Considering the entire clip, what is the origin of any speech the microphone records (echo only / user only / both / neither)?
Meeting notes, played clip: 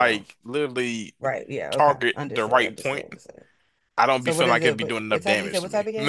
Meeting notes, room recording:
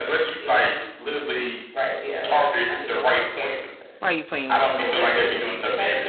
both